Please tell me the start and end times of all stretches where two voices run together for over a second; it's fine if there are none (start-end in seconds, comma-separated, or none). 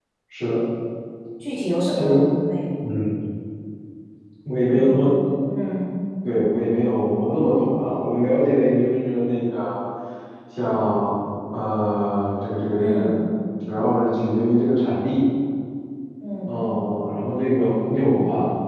none